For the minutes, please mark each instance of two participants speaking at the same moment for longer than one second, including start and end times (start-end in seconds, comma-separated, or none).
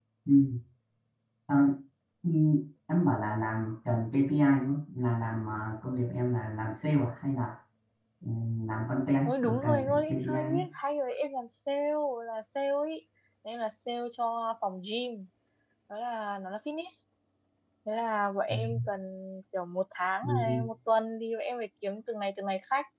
9.2-10.5